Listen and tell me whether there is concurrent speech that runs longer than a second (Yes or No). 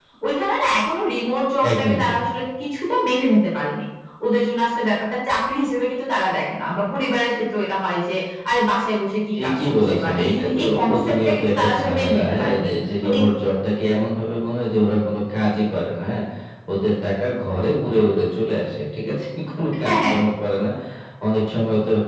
Yes